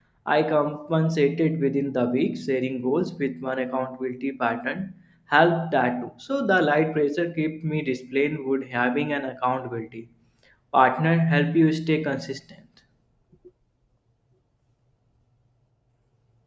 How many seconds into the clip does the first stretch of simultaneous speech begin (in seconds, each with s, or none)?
none